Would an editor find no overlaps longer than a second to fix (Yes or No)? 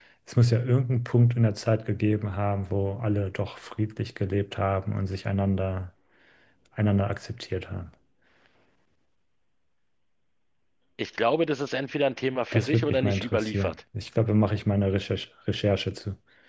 No